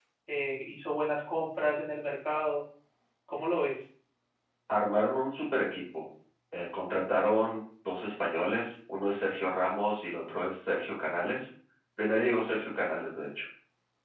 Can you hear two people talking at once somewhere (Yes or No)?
No